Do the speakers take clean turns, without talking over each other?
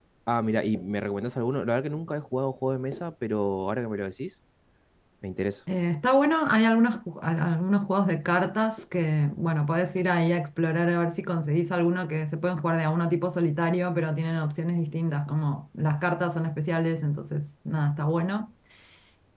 Yes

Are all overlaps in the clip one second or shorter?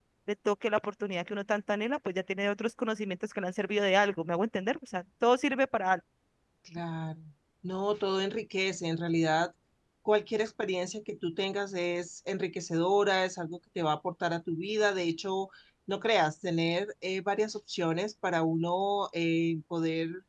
Yes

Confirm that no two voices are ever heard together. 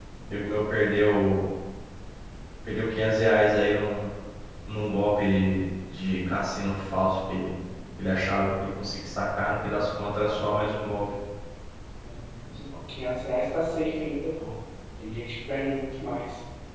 Yes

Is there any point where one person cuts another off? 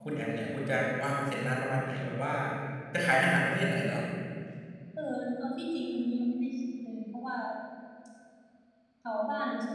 No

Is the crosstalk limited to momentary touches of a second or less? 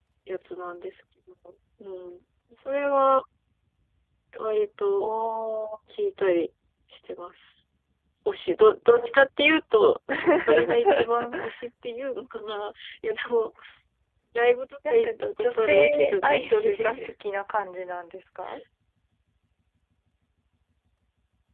No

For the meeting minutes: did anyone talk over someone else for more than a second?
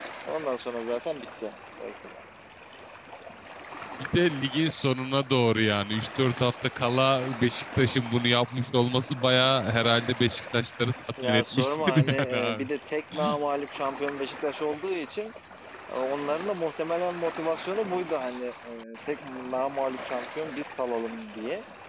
Yes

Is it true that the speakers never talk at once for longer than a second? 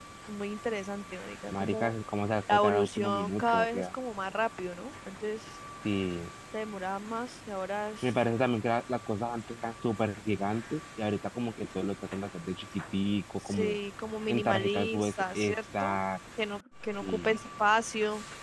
No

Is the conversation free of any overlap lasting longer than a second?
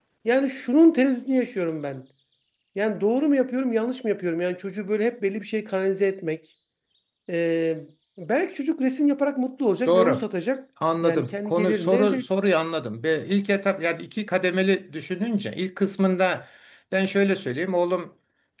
No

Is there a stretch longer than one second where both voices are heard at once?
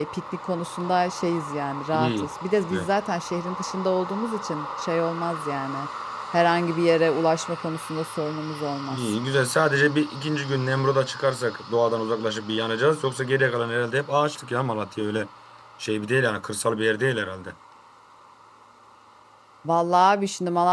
No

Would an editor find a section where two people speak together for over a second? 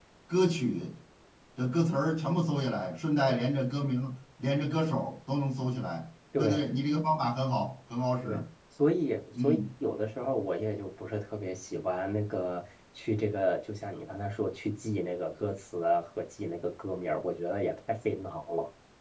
No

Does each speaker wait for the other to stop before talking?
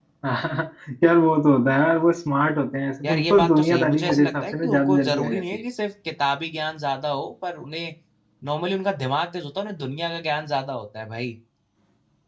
No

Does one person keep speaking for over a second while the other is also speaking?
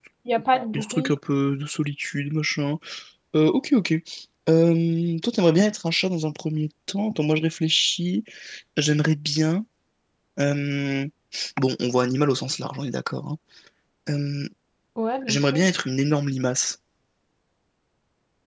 No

